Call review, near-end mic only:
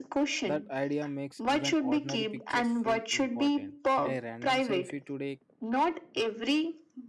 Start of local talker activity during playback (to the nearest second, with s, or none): 0 s